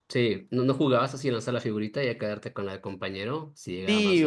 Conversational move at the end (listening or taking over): taking over